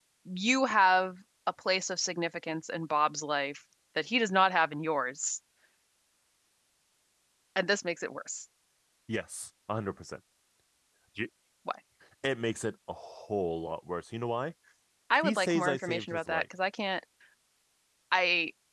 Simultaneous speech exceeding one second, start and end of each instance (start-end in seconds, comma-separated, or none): 15.2-16.4